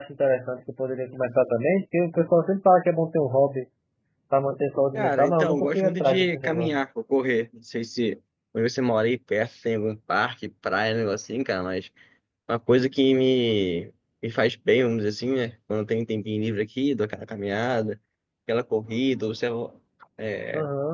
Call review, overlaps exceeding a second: present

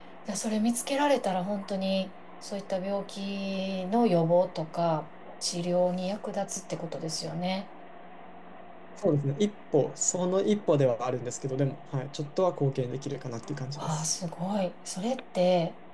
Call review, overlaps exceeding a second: none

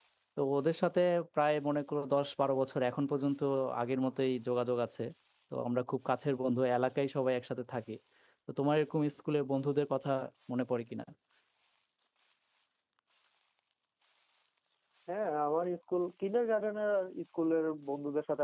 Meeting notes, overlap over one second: none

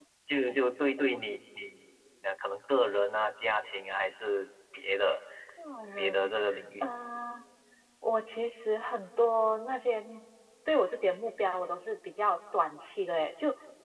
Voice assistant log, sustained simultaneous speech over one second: none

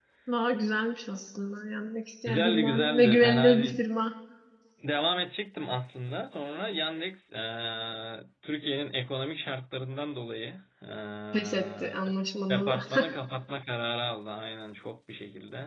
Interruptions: present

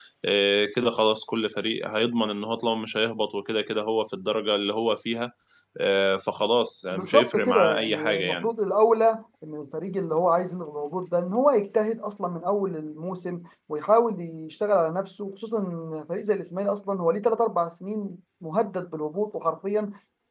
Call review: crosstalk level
present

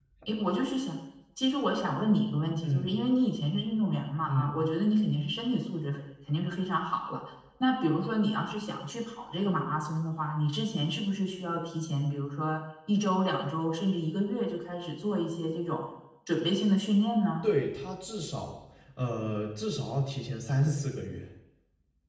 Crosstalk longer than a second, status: none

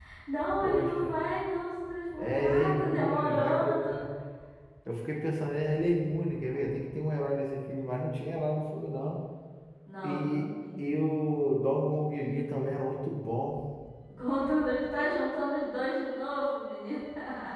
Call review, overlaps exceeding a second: present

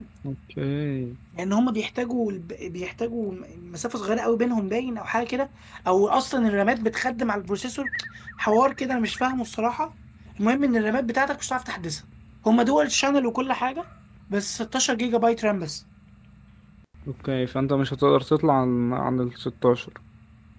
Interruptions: none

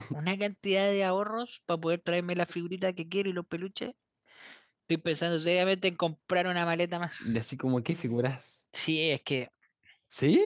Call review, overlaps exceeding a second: none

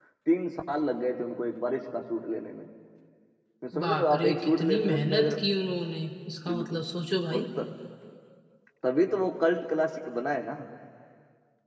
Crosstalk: present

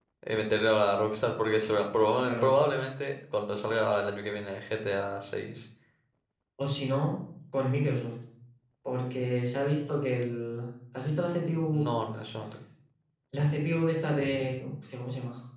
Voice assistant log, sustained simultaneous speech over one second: none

